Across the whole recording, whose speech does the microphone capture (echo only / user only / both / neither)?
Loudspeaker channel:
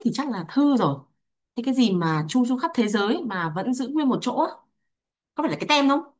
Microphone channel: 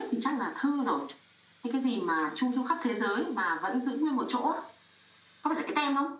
echo only